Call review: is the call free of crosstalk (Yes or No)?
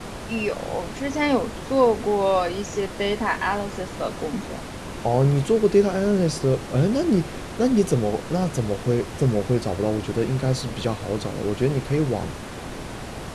Yes